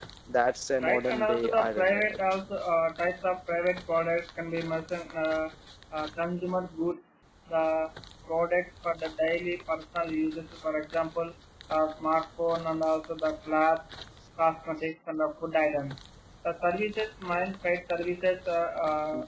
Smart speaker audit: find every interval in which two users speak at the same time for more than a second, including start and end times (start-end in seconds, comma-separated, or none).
0.8-2.2